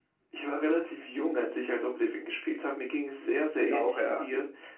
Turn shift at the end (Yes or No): No